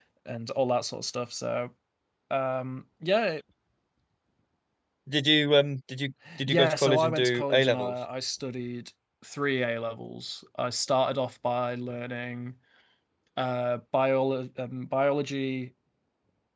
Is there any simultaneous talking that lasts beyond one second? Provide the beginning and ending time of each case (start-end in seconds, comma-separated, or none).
6.4-7.9